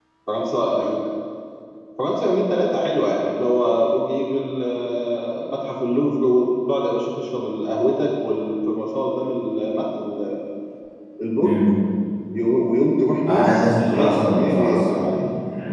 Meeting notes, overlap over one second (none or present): present